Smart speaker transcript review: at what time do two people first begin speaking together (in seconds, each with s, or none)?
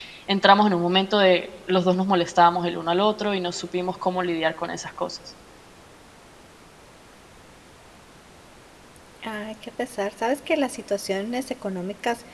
none